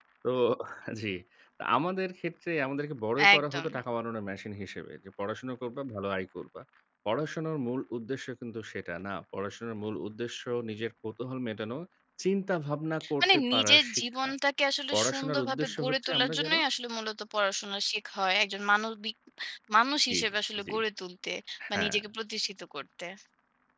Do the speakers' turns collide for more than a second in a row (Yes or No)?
Yes